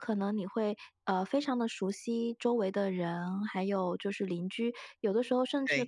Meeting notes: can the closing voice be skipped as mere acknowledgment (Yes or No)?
Yes